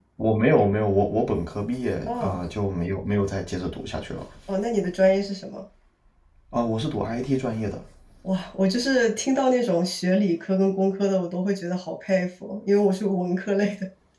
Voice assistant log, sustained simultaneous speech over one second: none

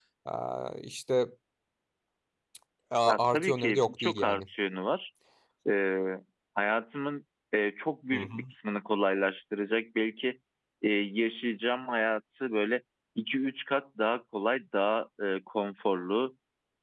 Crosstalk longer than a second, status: present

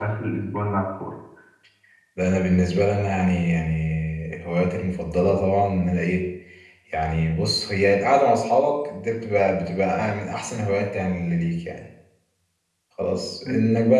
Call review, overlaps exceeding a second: none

